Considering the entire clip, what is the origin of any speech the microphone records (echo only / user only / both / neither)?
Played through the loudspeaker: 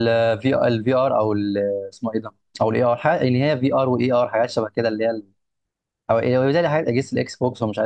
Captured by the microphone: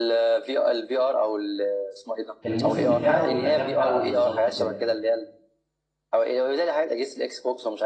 both